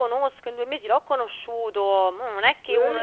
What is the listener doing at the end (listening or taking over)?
listening